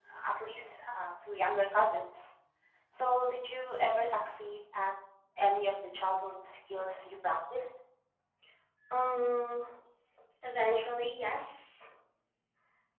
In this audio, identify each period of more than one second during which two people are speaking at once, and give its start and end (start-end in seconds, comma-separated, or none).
none